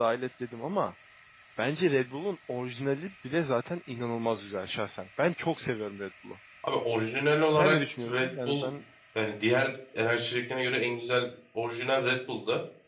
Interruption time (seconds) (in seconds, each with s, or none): 7.5 s